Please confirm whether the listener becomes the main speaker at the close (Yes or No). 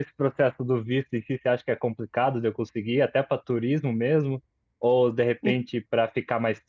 No